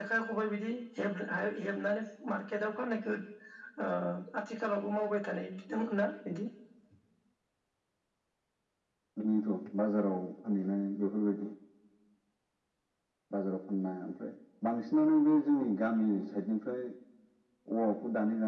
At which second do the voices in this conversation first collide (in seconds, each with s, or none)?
none